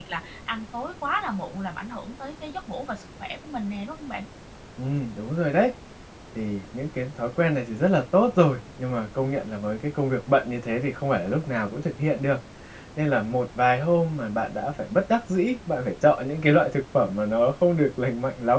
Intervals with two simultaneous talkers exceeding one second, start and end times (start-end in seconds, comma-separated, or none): none